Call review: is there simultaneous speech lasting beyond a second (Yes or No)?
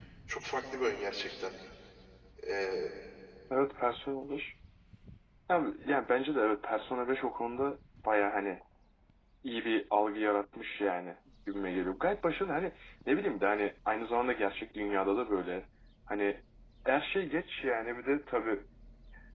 No